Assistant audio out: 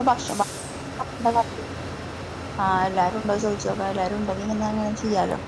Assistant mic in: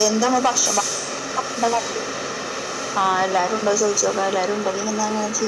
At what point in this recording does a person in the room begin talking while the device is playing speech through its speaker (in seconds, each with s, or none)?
none